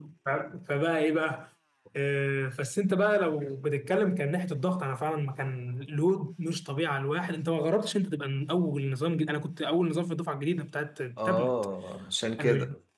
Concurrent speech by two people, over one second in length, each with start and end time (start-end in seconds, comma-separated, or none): none